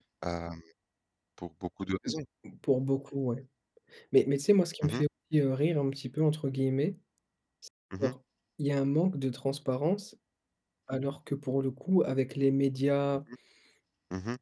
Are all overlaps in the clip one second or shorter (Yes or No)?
Yes